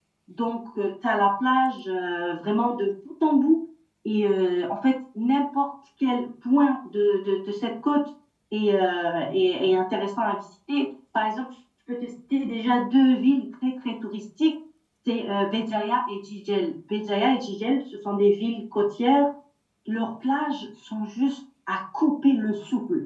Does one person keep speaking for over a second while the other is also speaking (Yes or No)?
No